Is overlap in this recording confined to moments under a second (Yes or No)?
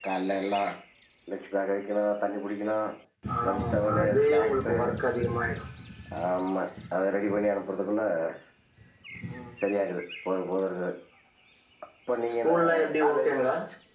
No